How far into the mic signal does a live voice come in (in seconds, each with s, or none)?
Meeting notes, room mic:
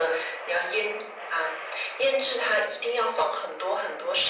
none